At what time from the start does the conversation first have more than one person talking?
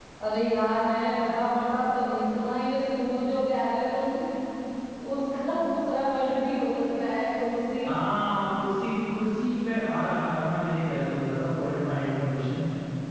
none

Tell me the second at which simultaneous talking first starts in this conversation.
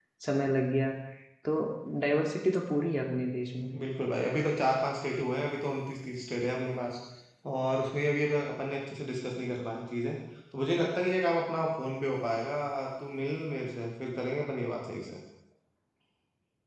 none

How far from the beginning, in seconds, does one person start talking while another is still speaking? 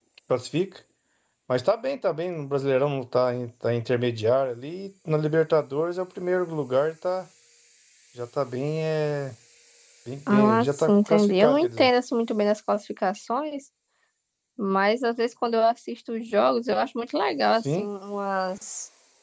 10 s

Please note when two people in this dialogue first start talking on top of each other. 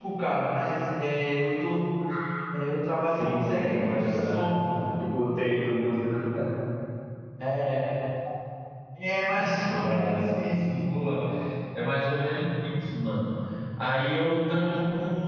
3 s

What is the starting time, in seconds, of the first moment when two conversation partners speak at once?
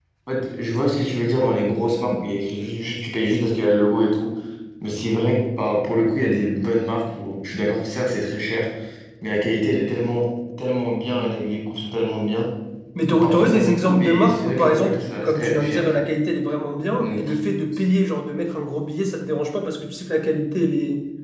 13 s

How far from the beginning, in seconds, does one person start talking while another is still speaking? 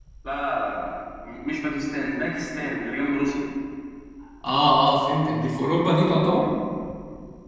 none

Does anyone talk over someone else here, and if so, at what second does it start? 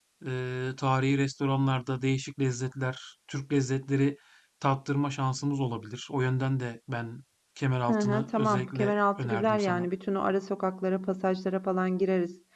8 s

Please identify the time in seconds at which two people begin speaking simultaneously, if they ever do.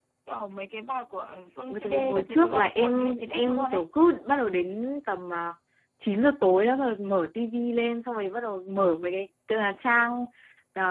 2 s

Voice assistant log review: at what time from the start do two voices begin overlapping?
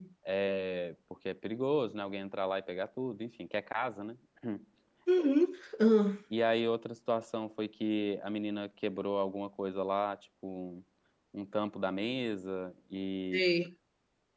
none

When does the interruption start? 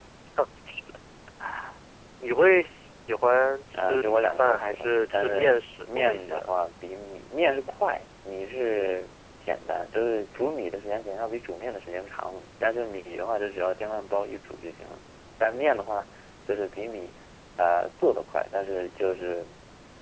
4 s

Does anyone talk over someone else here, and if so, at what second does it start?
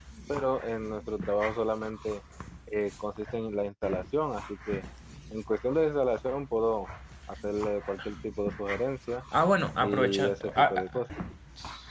10 s

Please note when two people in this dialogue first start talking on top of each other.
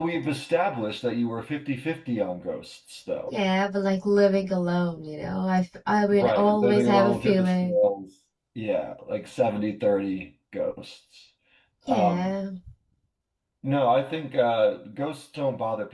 6 s

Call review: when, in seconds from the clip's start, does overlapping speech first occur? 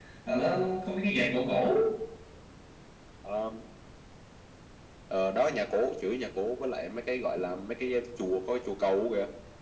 none

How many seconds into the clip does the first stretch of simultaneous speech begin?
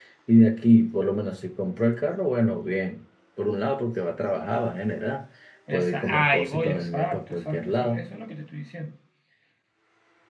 6 s

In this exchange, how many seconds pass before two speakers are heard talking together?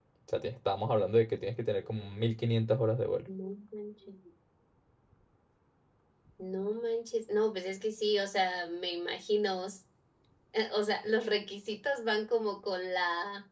none

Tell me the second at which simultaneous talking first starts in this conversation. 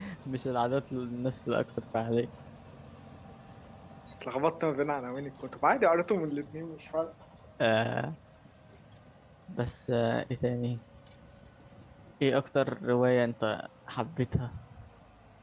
none

